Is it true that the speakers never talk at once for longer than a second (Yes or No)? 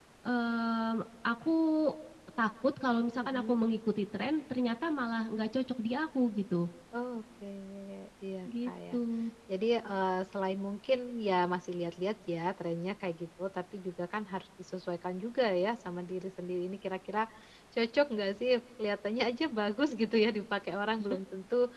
Yes